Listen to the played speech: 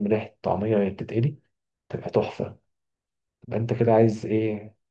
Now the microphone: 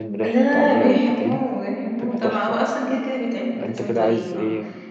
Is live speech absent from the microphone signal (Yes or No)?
No